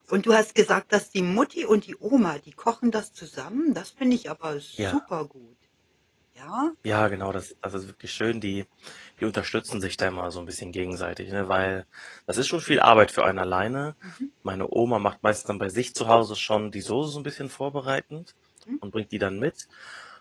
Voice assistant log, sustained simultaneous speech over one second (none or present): none